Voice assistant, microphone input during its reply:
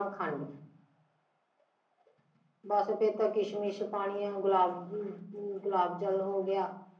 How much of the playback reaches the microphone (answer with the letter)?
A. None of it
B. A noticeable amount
B